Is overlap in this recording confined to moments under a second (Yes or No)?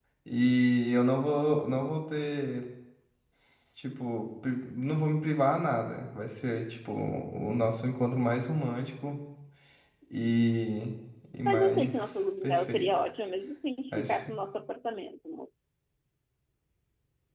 No